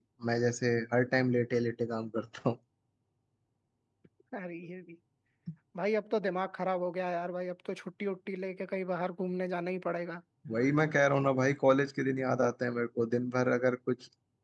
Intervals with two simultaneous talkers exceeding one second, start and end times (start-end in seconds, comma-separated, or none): none